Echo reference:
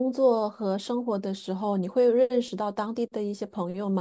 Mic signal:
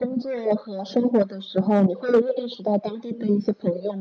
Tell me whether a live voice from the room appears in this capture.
No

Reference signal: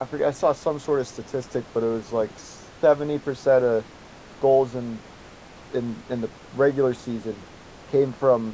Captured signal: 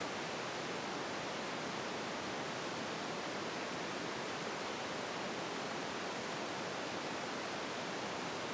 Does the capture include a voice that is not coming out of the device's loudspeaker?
No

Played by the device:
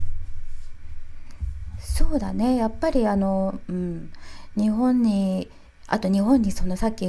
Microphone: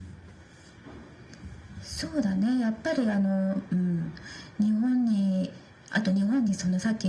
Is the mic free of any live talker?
Yes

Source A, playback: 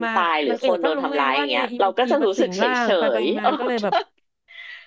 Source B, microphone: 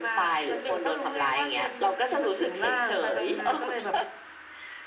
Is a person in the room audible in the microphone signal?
No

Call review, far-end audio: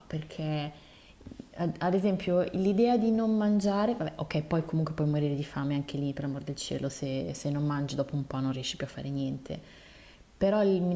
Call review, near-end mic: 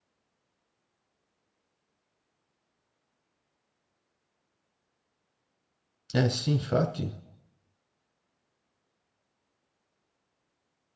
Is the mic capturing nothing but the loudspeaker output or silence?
No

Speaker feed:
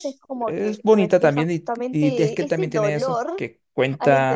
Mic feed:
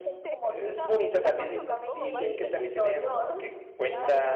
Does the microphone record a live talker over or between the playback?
Yes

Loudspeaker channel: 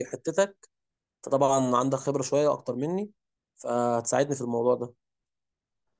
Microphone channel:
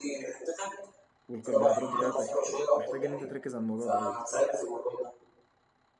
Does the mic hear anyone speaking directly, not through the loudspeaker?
Yes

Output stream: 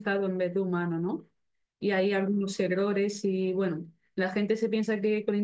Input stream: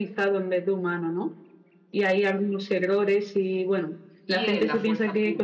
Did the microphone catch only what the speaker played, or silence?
No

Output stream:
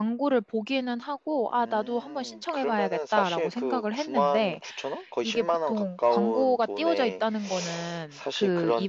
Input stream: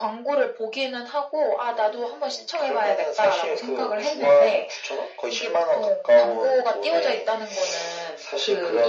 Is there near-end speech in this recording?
No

